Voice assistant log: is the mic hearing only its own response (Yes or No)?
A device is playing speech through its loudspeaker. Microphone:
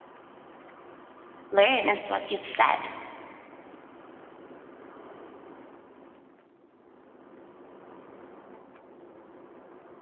No